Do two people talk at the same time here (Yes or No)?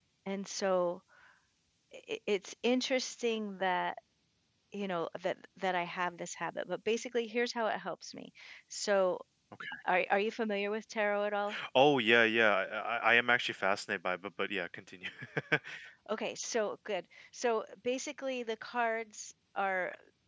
No